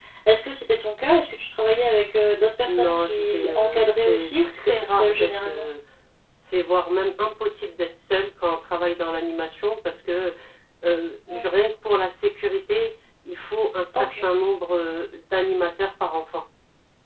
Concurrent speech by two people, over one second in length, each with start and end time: 2.6-5.7

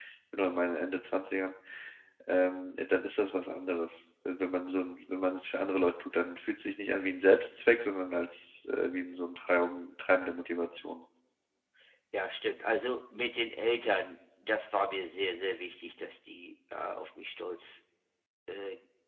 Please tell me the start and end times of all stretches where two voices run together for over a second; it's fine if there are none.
none

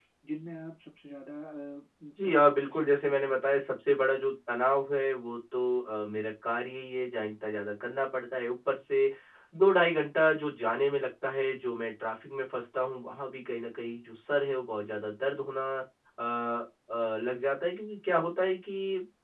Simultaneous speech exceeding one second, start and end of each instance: 2.2-3.5

